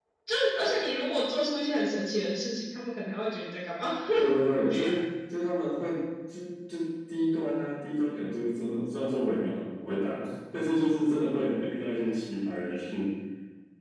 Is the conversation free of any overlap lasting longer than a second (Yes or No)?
Yes